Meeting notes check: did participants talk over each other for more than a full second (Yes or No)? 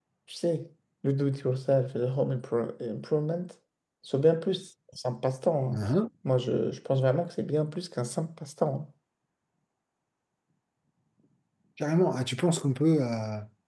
No